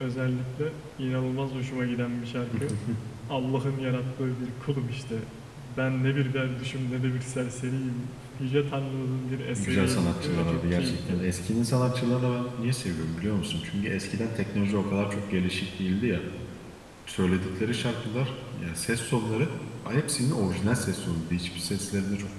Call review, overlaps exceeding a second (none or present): present